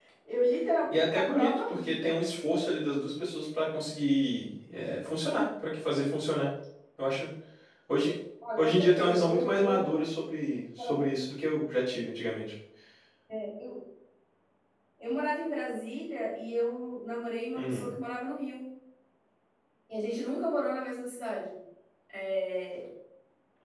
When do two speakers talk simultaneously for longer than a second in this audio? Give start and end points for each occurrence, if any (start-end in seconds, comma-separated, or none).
0.9-2.2, 8.6-9.9